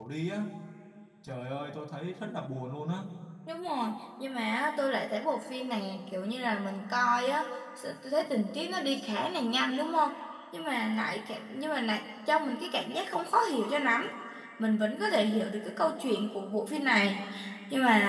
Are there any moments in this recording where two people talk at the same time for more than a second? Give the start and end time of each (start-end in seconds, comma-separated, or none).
none